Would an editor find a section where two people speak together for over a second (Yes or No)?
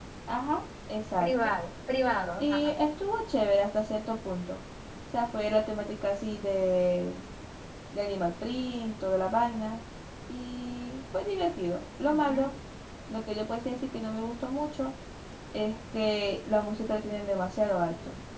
No